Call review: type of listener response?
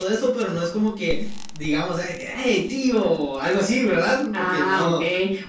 taking over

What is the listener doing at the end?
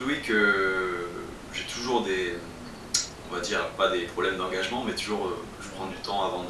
listening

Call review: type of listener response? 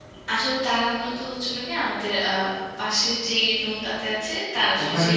listening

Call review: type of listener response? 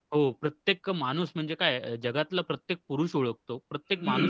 taking over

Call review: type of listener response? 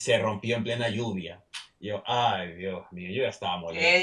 taking over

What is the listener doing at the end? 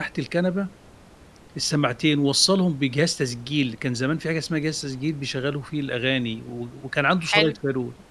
listening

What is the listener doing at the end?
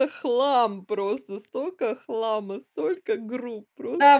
taking over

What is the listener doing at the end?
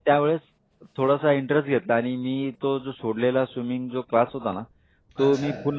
listening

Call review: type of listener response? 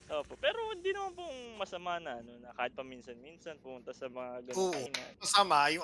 taking over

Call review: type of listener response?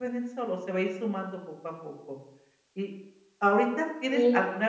listening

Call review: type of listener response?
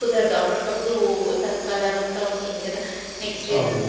listening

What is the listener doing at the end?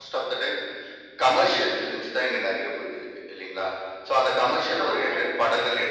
listening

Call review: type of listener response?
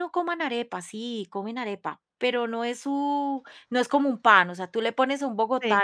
listening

